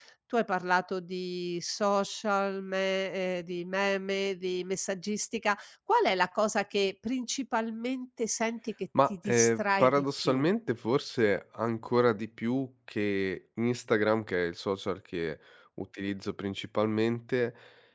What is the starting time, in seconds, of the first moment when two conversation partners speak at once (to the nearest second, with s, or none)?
9 s